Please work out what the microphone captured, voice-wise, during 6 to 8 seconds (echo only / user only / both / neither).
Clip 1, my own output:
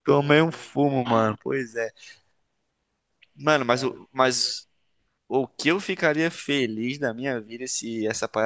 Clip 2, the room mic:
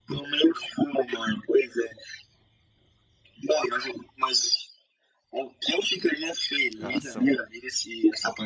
both